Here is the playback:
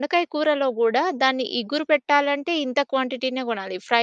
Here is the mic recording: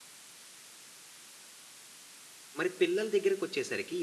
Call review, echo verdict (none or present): none